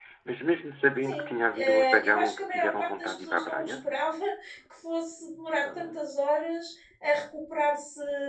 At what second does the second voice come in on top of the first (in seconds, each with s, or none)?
1.1 s